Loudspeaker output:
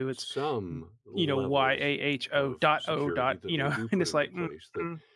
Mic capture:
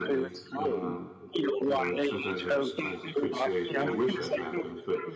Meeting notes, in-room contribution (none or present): present